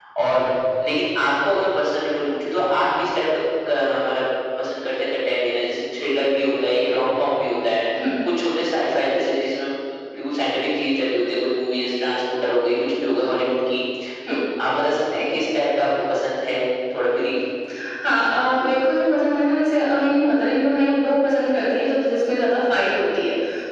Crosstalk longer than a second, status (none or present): none